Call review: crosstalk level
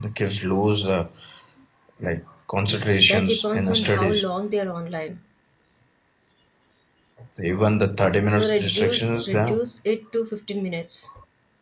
present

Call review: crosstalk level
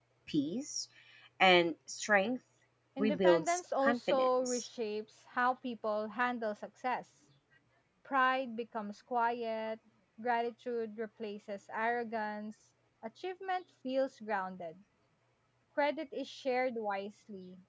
present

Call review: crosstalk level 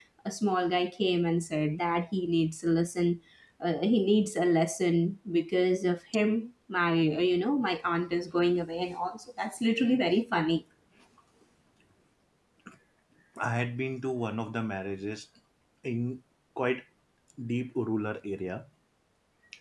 none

